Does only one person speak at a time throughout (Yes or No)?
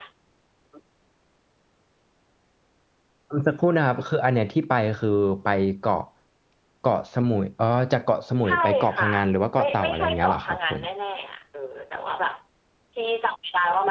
No